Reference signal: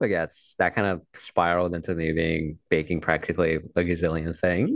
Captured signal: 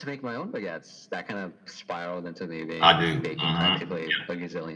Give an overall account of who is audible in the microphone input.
both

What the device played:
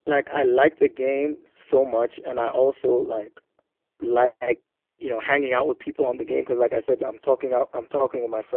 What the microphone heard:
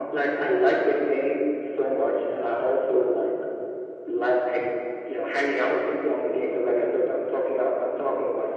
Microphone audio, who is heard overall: echo only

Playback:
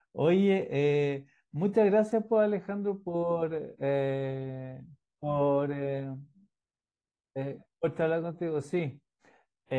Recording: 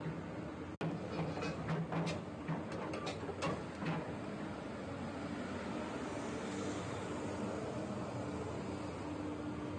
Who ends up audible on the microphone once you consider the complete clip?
neither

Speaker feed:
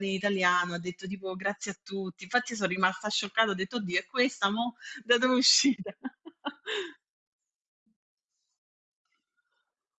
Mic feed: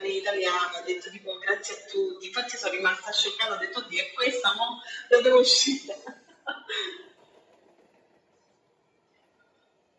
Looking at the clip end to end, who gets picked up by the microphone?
echo only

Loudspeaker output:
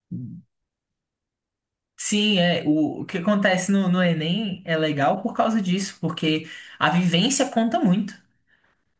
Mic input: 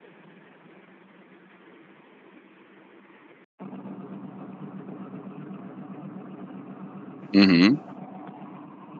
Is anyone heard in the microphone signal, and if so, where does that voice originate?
user only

